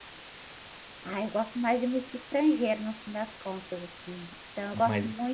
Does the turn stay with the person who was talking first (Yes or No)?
Yes